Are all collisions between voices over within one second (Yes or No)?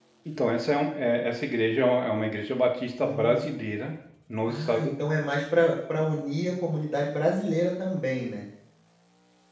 Yes